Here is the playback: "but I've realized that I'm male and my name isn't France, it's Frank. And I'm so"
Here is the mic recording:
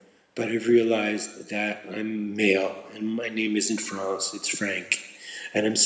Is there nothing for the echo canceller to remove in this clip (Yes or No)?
No